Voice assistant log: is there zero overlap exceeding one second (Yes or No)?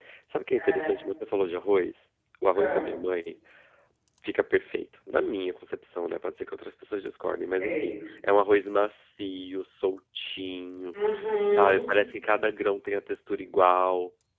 Yes